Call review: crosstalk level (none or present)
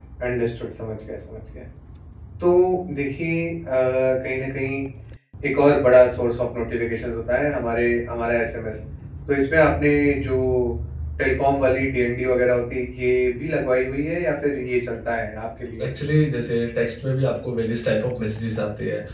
none